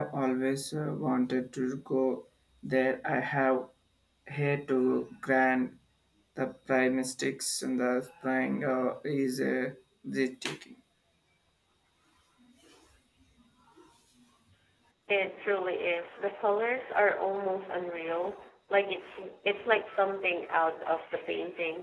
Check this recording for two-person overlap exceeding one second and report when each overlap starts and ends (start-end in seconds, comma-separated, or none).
none